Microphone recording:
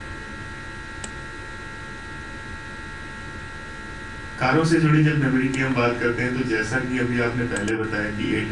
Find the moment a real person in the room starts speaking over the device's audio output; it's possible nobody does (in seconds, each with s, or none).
4.4 s